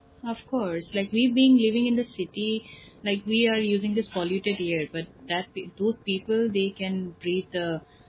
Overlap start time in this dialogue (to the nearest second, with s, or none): none